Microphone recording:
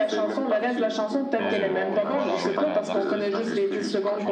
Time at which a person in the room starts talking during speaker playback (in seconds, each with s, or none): 1.4 s